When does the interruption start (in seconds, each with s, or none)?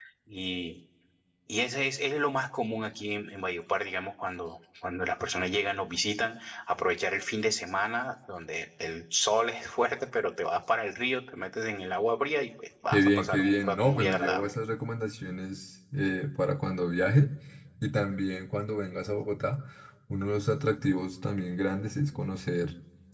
12.9 s